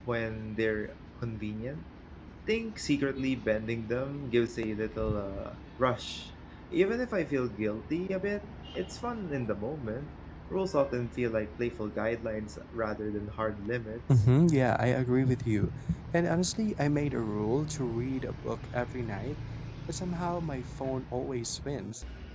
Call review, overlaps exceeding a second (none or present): none